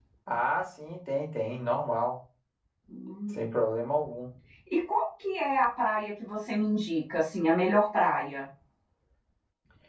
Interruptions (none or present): none